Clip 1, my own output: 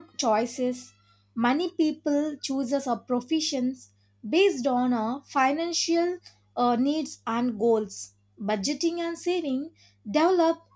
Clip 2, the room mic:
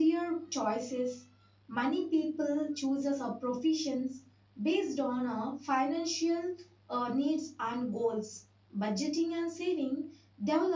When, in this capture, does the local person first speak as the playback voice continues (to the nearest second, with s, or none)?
none